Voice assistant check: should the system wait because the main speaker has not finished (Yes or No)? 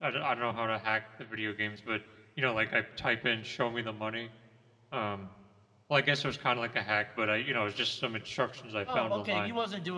No